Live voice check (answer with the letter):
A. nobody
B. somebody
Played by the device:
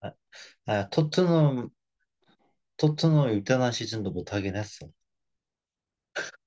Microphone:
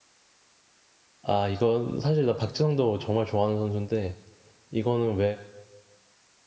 B